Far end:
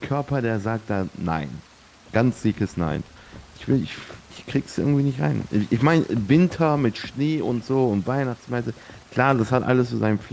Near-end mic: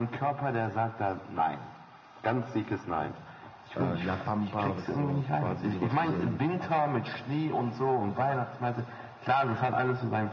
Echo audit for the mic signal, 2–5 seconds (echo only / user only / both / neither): both